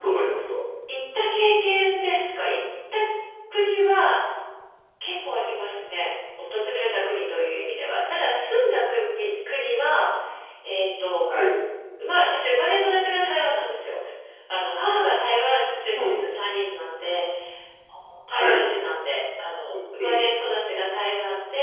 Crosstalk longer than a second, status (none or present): none